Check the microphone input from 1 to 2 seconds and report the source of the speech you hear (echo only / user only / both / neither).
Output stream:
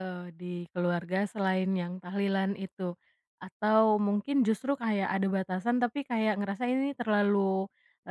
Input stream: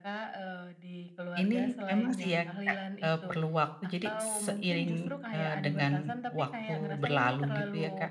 both